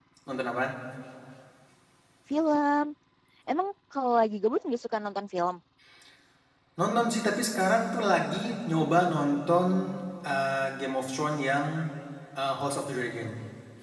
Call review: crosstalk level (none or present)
none